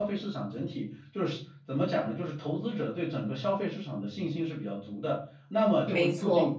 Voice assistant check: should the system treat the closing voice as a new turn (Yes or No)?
No